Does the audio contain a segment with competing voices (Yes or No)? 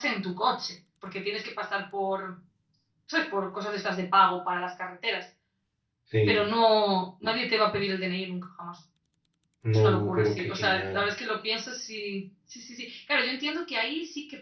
Yes